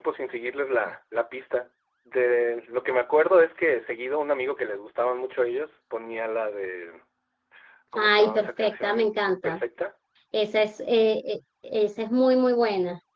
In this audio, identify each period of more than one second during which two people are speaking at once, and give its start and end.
8.0-9.6

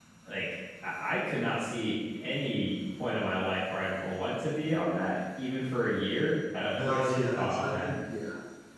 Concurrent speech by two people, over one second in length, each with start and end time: 6.7-7.9

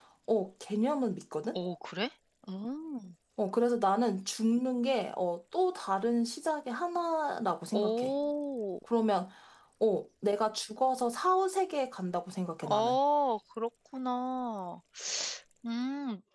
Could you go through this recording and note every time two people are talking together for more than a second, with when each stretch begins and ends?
none

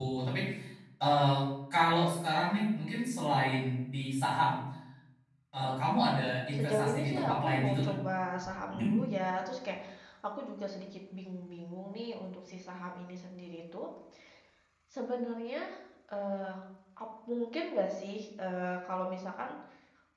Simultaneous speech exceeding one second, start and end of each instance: 6.6-7.9

